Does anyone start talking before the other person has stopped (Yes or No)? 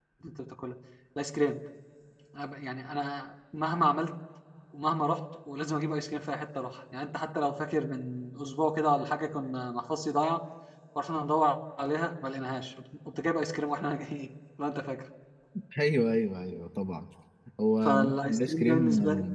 Yes